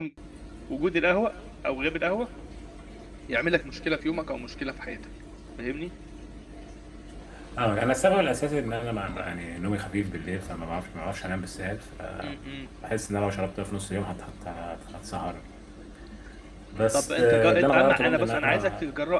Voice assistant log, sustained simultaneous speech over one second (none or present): present